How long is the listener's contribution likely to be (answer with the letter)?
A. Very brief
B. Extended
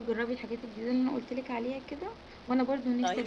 A